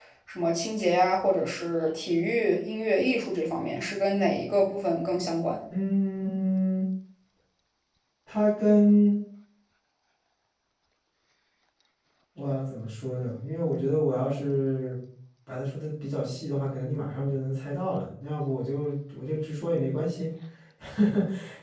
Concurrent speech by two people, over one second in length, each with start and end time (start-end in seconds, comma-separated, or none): none